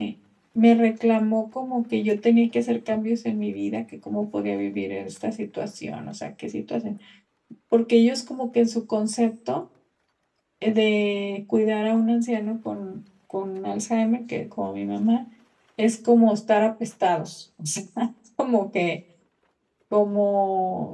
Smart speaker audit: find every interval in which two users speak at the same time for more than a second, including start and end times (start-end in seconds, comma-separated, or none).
none